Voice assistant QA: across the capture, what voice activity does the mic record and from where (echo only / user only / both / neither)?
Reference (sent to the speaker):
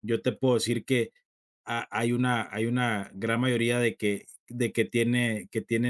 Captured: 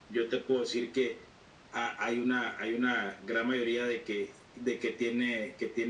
echo only